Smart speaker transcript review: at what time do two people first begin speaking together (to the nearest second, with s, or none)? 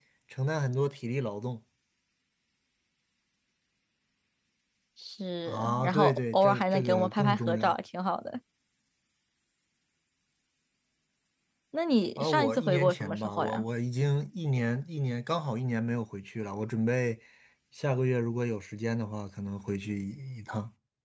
5 s